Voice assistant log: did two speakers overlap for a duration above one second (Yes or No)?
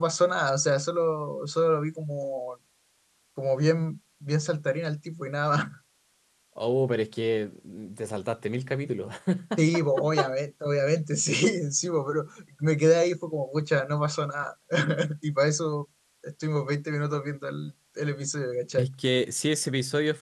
No